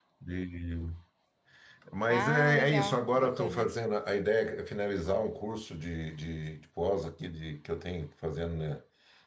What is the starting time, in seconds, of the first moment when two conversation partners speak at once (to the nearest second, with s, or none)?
2 s